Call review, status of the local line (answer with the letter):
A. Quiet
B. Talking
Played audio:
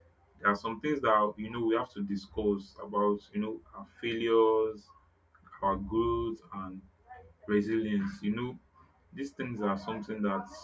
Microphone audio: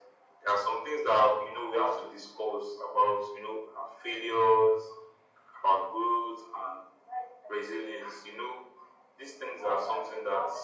A